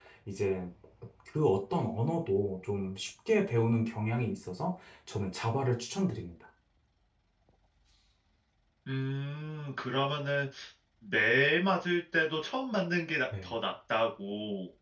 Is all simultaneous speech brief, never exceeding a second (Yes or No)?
Yes